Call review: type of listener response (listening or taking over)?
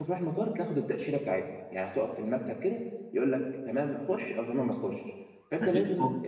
listening